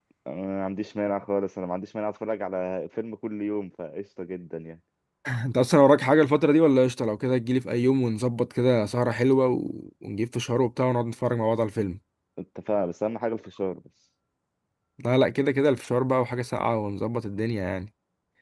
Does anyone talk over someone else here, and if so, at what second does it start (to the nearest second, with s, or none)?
none